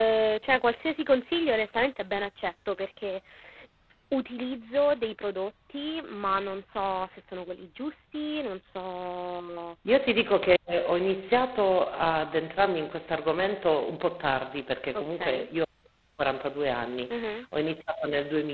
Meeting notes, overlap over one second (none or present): none